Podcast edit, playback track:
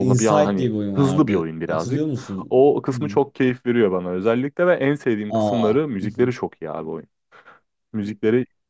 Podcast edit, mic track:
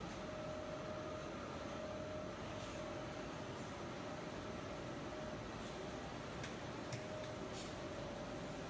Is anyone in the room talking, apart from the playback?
No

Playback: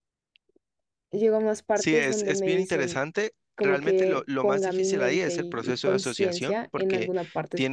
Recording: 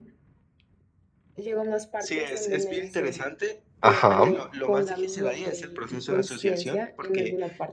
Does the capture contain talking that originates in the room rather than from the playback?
Yes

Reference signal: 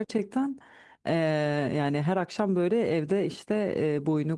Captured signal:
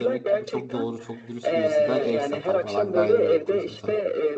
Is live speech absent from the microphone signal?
No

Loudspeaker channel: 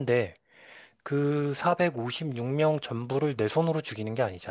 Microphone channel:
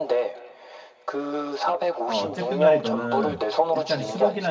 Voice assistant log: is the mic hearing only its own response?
No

